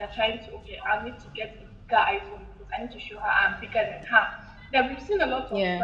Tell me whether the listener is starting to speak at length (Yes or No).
No